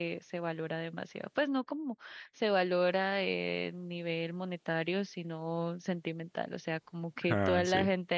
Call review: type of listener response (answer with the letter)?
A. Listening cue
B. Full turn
A